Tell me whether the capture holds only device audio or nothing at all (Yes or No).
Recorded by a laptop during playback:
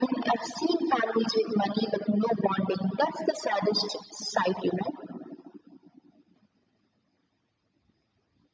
Yes